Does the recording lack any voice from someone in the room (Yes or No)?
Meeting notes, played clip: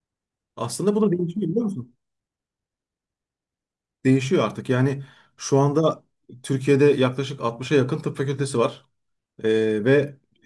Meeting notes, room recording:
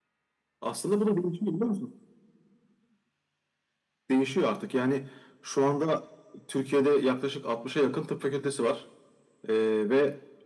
Yes